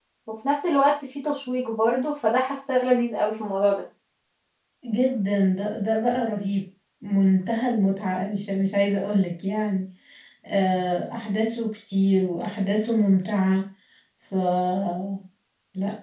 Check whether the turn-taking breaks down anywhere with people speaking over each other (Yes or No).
No